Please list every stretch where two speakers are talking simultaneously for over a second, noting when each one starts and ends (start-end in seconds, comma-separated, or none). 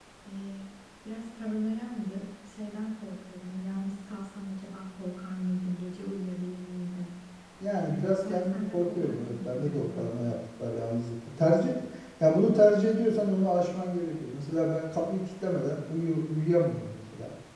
7.7-10.2